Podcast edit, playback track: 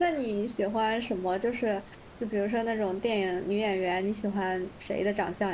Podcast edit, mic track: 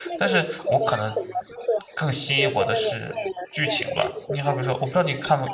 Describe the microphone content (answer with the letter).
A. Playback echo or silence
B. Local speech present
B